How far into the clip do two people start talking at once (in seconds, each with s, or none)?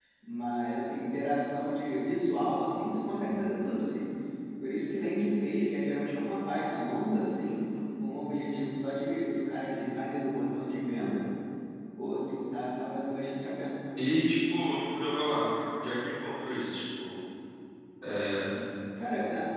none